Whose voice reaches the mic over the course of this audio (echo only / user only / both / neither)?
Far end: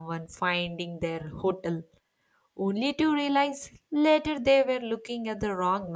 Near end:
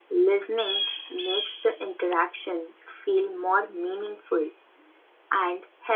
user only